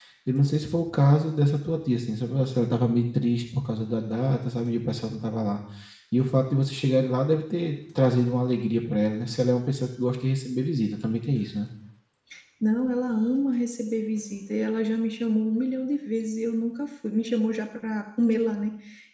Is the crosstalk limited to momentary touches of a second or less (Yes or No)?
Yes